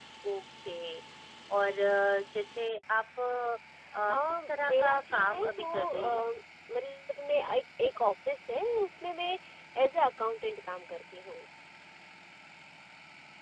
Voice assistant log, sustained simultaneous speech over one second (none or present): present